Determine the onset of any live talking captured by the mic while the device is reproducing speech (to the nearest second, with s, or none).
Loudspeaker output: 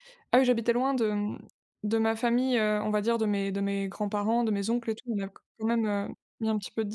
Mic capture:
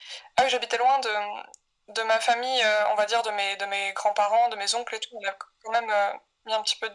none